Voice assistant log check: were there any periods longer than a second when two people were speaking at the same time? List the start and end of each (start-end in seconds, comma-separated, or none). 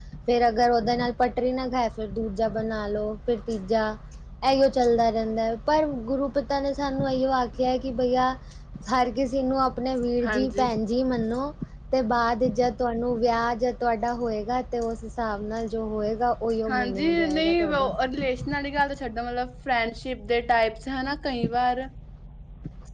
16.7-17.9